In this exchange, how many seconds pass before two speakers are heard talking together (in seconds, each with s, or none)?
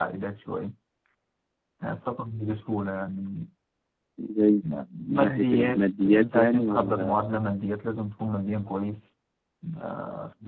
5.1 s